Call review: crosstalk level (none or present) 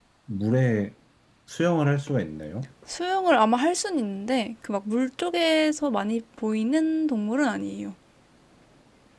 none